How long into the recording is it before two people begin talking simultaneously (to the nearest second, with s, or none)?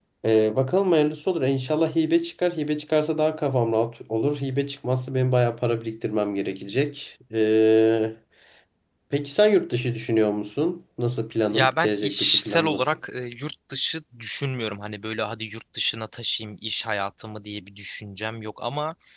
12 s